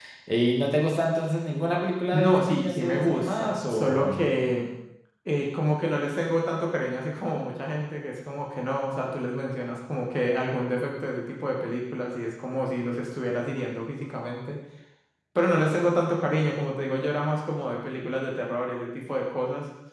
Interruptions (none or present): present